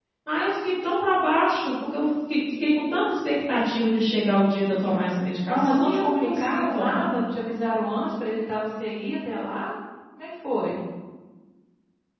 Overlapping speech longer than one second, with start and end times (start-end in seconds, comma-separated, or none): 5.5-7.1